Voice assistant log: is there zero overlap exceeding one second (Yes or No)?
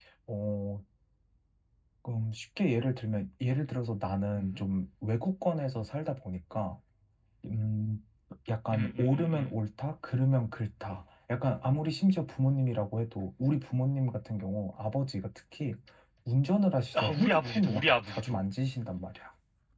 No